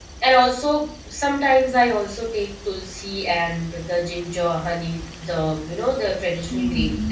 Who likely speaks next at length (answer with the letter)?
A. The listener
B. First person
A